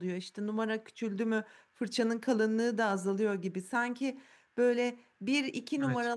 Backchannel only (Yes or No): Yes